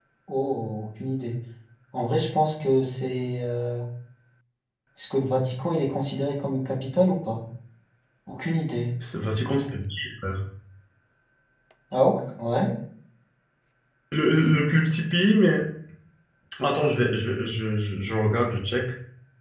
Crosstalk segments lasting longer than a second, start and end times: none

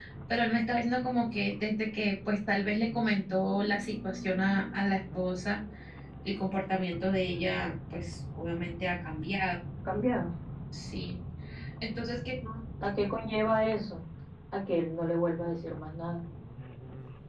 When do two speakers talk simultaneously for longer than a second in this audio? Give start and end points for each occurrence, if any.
none

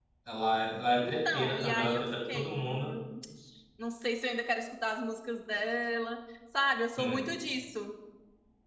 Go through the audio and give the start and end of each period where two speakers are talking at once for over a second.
1.0-2.9

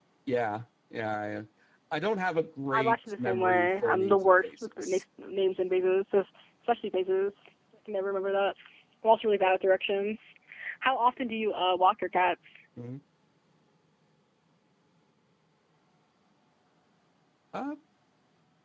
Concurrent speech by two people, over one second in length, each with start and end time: 2.7-5.0

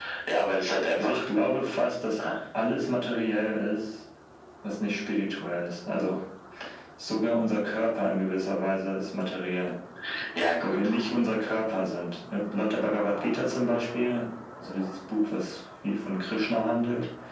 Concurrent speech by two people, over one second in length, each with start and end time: none

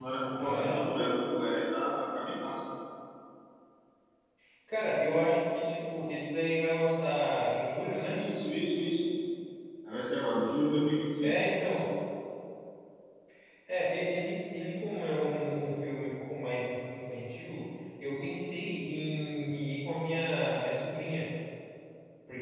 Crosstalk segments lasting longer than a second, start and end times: none

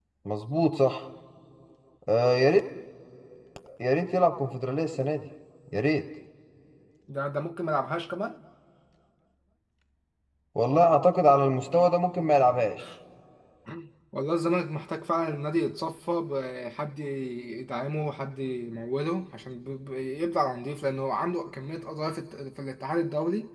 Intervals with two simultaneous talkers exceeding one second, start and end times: none

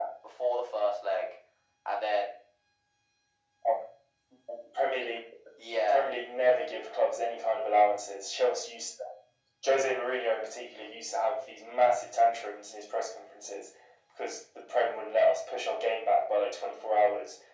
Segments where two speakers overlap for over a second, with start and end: none

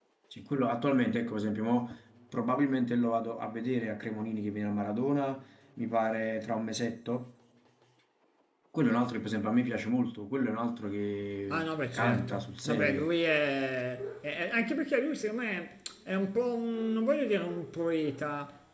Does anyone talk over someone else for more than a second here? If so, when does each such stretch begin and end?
11.5-13.1

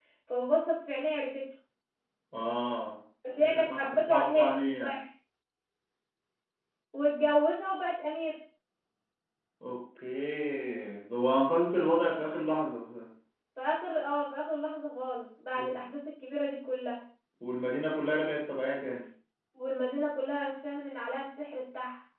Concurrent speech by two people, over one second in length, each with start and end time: 3.4-5.0

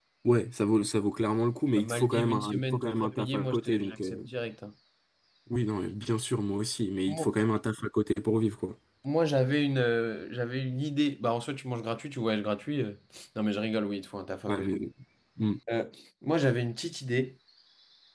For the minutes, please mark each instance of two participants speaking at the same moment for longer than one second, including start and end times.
1.8-4.3

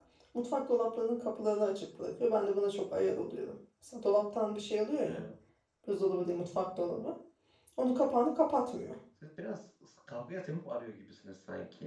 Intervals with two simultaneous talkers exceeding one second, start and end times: none

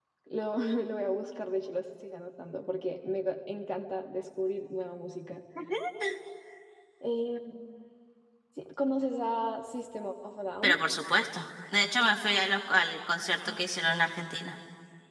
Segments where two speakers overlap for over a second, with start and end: none

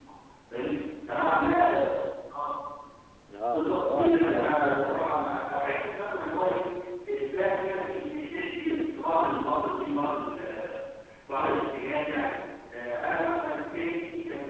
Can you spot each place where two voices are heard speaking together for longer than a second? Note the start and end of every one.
3.5-5.0

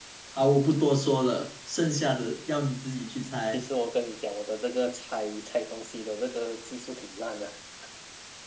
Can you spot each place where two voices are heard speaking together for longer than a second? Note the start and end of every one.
none

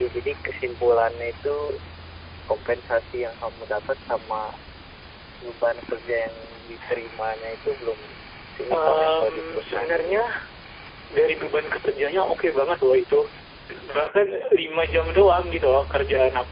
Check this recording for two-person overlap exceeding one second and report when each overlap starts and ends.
8.7-10.2

